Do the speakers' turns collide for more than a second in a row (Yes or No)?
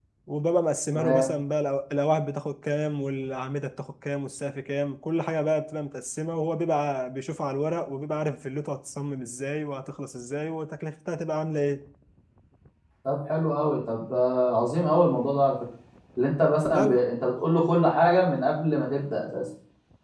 No